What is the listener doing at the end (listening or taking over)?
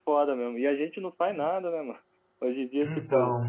listening